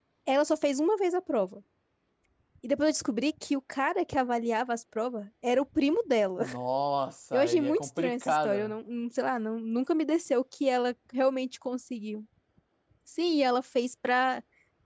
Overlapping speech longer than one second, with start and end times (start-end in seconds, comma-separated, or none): 7.3-8.7